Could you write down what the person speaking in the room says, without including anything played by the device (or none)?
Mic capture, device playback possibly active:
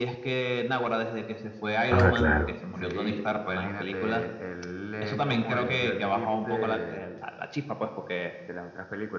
Ah, claro.